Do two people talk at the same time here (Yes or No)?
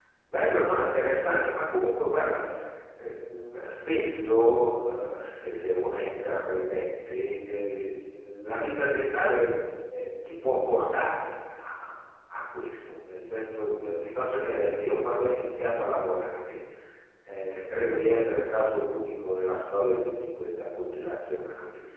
No